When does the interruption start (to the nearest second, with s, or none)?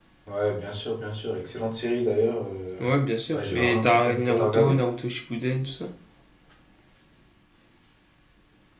3 s